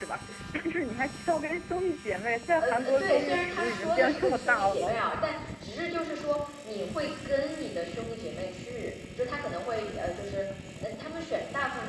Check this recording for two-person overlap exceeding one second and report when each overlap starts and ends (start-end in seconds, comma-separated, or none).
2.6-5.0